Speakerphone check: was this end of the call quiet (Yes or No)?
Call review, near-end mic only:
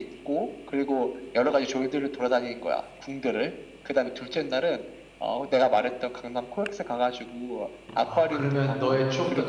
No